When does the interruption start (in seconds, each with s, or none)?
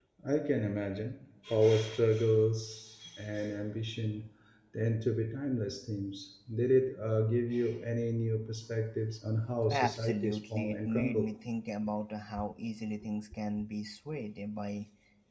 9.7 s